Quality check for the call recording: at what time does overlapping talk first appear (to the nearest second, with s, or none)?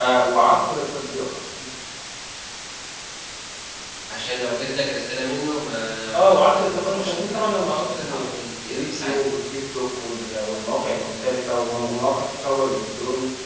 6 s